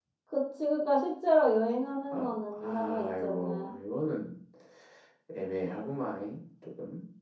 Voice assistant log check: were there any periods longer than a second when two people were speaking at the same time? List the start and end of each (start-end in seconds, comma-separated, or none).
2.1-3.7